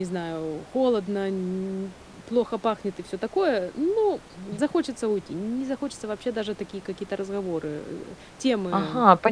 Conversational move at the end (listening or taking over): taking over